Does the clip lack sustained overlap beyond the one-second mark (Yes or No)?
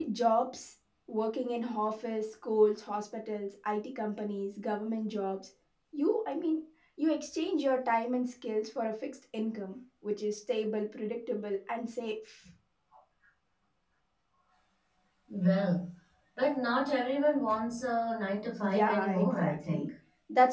No